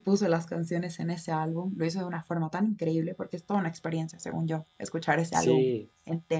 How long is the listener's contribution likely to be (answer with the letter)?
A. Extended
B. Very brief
A